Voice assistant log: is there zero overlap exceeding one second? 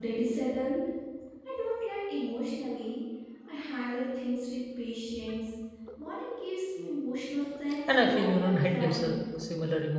No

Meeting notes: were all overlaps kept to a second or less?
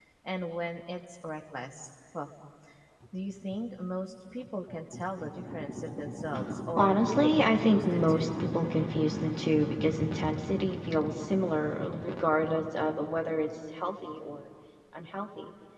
No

